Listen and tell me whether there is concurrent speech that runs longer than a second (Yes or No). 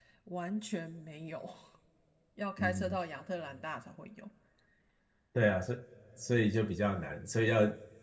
No